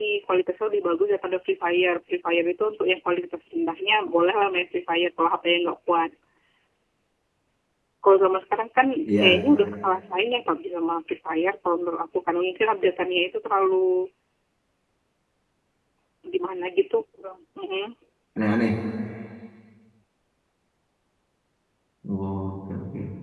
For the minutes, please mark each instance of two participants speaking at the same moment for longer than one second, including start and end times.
none

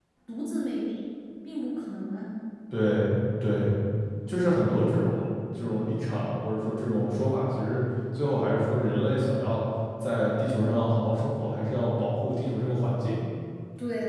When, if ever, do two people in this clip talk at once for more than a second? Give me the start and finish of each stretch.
none

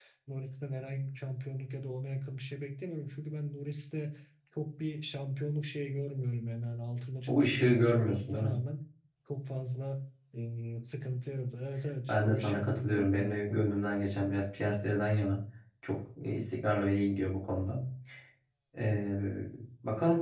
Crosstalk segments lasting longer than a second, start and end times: 7.3-8.6, 12.1-13.6

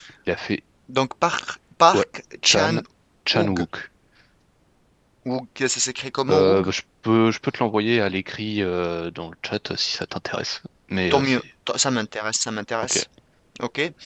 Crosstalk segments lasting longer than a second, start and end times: none

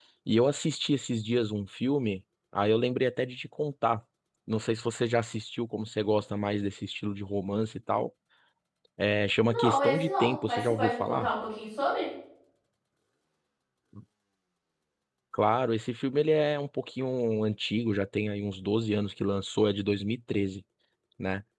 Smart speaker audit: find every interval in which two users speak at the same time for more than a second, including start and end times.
9.5-11.3

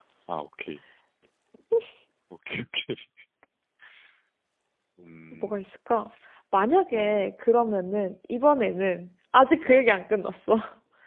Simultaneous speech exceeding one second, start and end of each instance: none

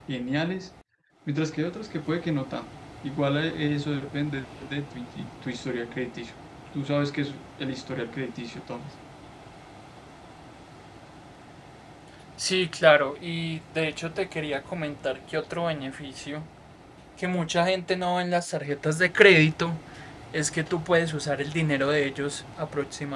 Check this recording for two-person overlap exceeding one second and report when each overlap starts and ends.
none

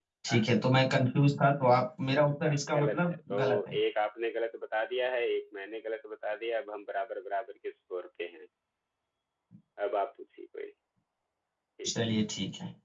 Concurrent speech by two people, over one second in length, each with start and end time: 2.4-3.8

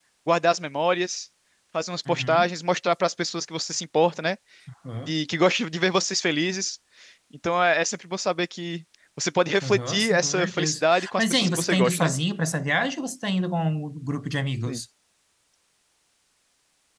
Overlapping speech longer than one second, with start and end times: 9.6-12.1

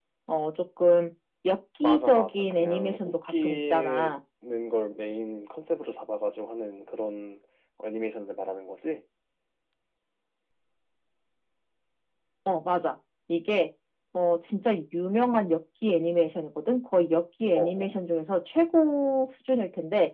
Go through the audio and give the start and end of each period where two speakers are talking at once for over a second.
1.8-4.1

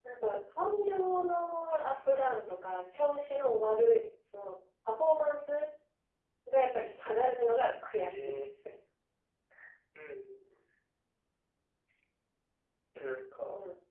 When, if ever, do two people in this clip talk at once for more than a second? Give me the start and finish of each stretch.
none

